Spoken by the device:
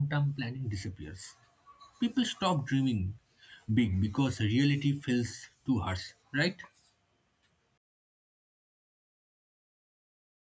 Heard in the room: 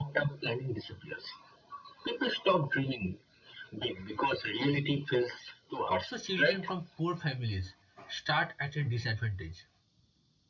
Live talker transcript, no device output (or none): so children from poor families start at a disadvantage.